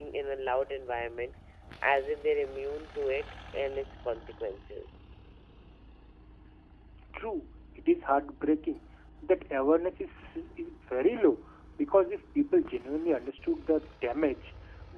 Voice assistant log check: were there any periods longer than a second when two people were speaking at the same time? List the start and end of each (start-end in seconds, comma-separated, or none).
none